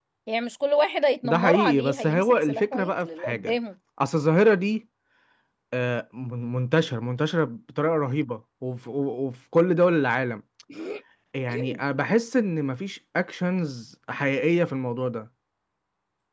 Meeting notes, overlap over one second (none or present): present